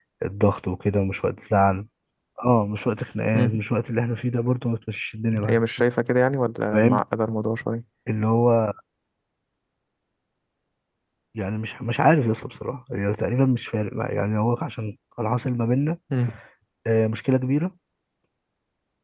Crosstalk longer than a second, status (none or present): none